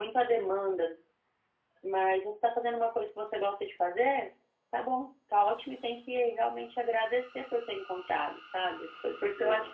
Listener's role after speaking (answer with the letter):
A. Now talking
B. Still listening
B